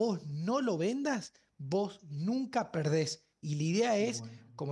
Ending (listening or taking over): listening